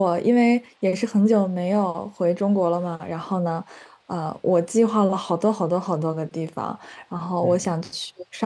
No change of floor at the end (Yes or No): Yes